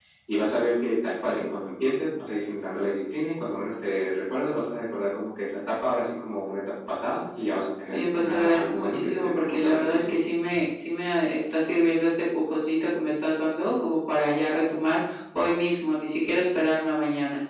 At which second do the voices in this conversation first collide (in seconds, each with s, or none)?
7.9 s